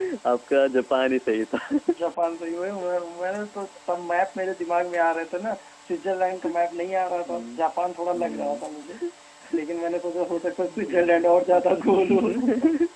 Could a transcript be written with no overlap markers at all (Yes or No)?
No